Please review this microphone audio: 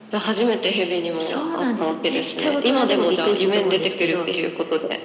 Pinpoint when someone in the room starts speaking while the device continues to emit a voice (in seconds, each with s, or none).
none